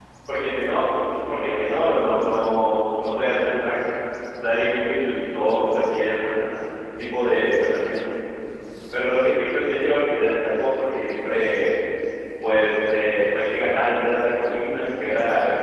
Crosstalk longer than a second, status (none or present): present